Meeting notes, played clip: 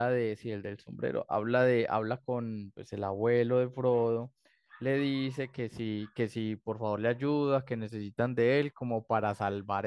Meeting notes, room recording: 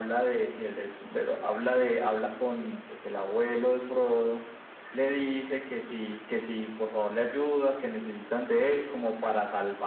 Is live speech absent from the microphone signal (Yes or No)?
Yes